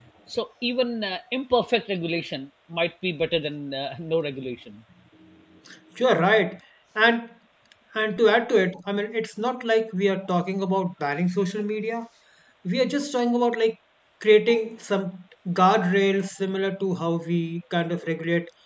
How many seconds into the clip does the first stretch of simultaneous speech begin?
none

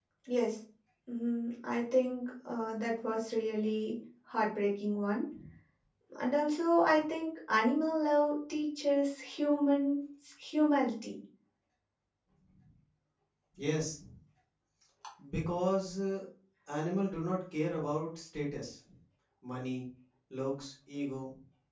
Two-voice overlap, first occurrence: none

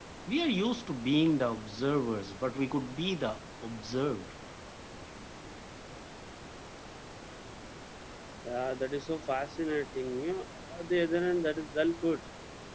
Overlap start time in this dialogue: none

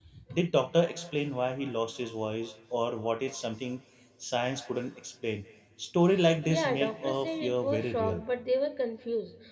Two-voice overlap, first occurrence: 6 s

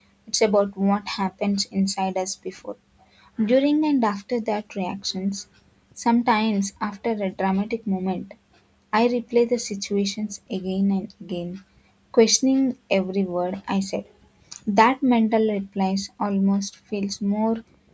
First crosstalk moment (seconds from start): none

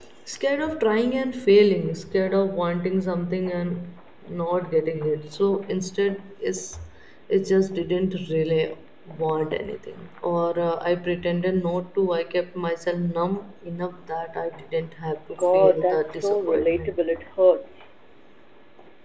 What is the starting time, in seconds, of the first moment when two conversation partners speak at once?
15 s

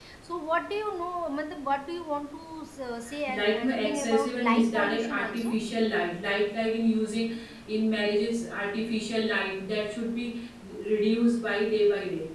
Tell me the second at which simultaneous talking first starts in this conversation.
3 s

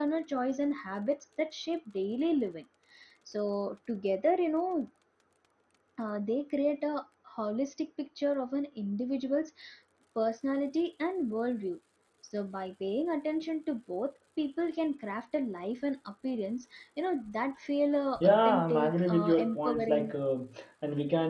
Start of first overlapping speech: 18 s

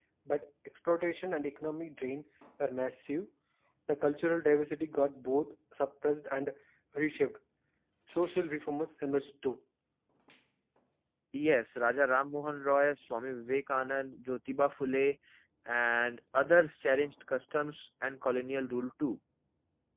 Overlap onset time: none

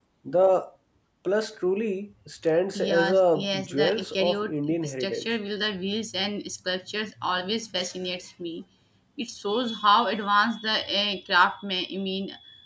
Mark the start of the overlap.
3 s

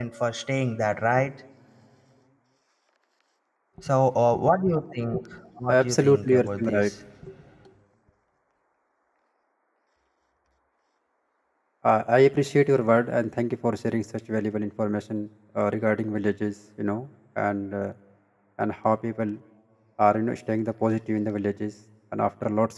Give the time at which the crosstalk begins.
6 s

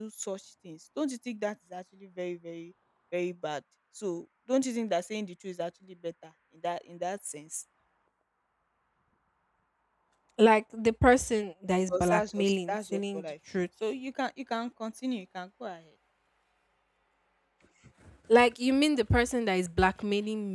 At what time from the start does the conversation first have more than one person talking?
12 s

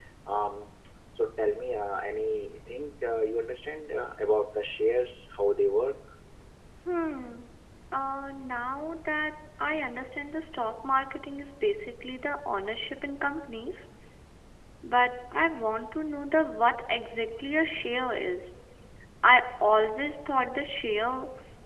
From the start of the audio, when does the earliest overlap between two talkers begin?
none

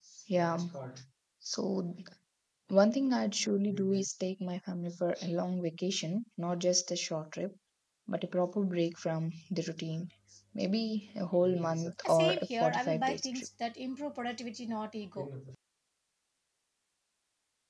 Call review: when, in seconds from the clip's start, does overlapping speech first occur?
12 s

